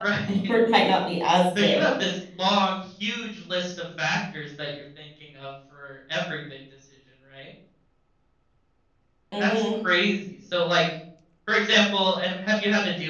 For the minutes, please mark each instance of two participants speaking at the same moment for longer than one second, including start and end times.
none

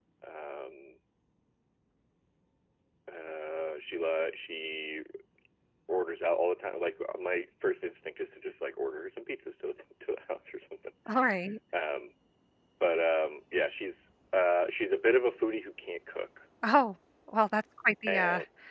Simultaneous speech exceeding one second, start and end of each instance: none

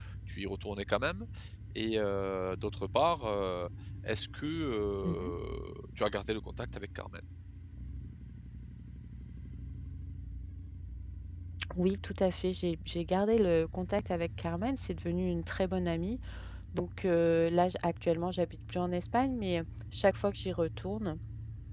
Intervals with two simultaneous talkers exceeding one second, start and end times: none

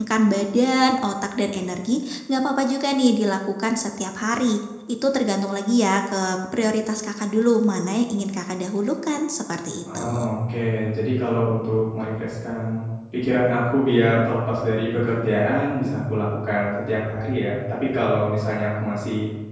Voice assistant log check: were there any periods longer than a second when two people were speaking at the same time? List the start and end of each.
none

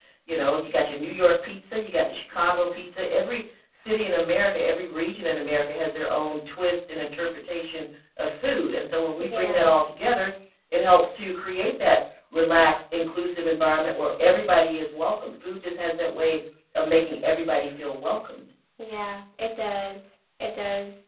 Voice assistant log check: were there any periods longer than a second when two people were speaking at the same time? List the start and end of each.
none

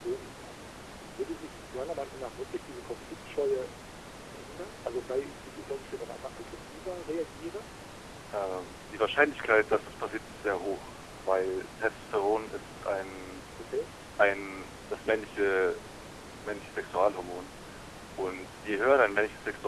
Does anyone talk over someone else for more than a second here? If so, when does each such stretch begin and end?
none

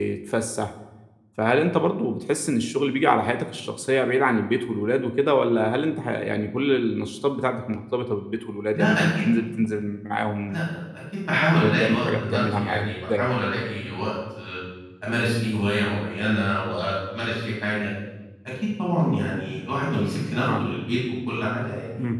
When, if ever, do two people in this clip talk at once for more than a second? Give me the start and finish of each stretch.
11.6-13.3

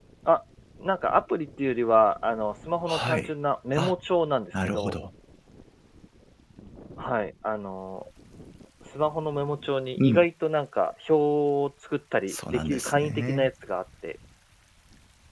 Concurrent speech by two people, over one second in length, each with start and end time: 12.3-13.5

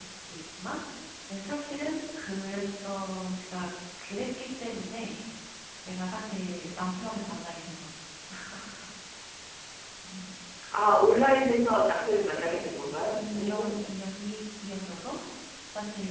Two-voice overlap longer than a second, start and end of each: 12.3-13.9

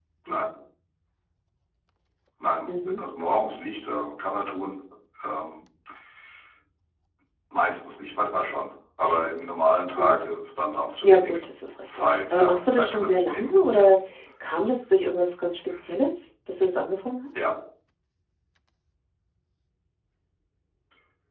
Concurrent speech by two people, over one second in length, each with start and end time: 11.8-13.9

